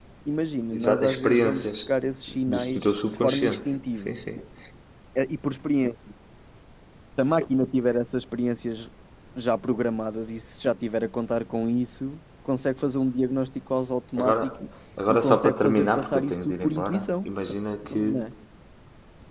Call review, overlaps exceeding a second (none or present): present